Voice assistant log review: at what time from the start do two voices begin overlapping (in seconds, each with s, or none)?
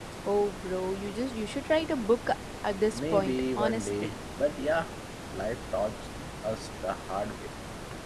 2.9 s